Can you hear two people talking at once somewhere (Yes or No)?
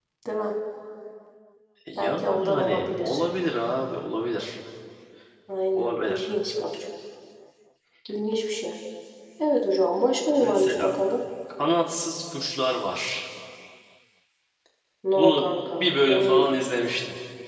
Yes